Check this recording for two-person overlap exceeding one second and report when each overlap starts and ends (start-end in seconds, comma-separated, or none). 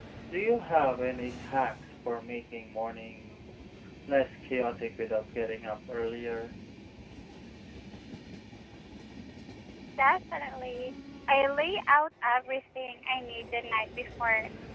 none